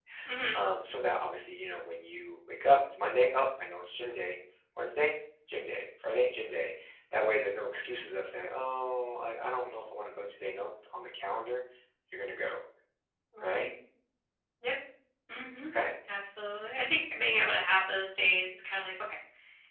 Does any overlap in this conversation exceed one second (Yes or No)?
No